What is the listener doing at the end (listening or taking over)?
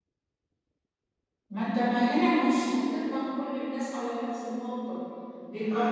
taking over